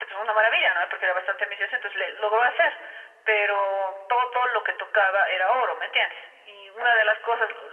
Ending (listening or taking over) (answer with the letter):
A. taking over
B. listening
B